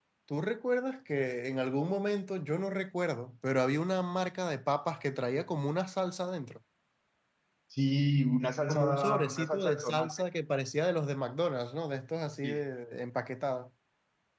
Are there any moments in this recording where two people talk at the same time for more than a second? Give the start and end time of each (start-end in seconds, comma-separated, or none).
8.7-10.2